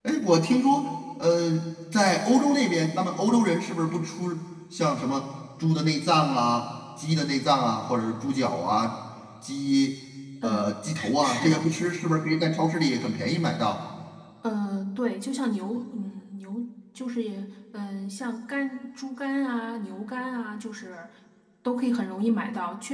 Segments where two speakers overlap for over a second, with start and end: 10.4-11.8

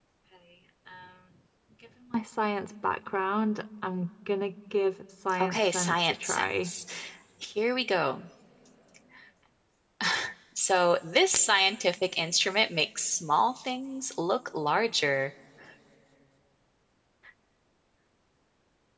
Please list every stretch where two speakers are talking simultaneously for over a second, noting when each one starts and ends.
5.4-6.7

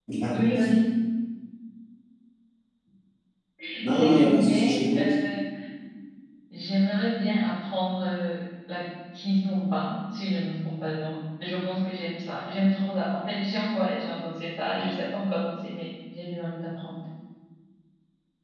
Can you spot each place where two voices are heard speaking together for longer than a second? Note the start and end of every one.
3.8-5.0

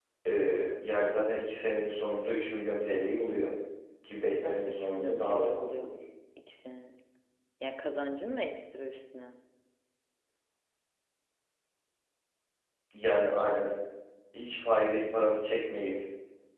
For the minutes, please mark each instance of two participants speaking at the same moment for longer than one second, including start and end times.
4.4-5.9

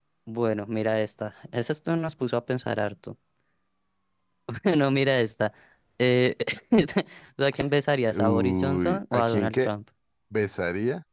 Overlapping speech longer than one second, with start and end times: 8.1-9.7

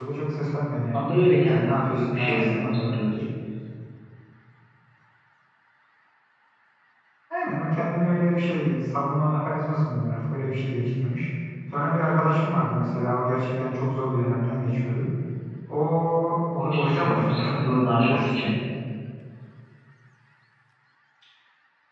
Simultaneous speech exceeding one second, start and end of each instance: 1.5-3.1, 16.7-18.5

